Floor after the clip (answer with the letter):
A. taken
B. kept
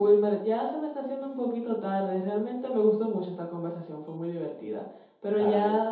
B